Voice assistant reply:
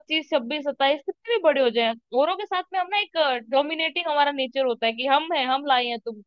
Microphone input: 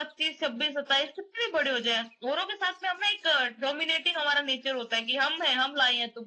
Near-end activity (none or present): none